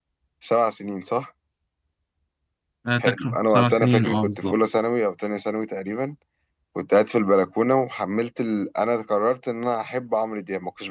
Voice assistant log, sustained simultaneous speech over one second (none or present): present